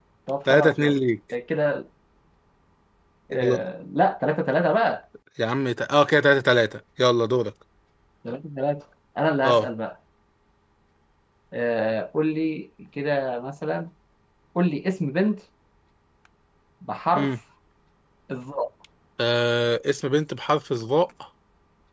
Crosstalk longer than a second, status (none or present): none